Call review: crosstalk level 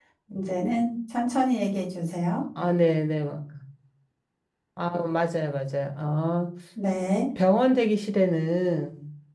none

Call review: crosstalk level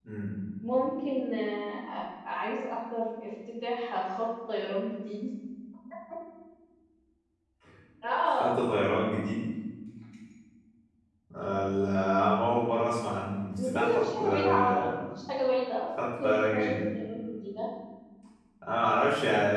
present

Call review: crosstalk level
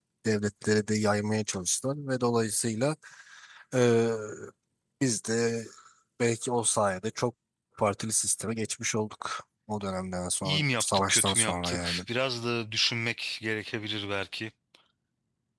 present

